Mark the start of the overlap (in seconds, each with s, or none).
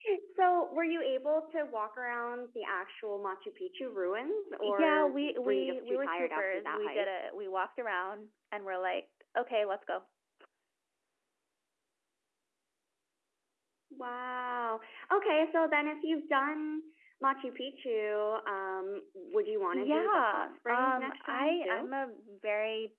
4.6 s